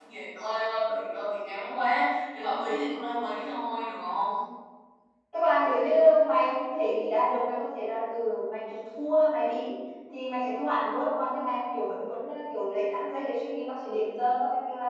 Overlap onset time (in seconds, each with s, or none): none